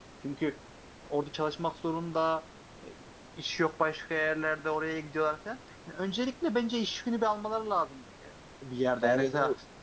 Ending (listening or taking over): taking over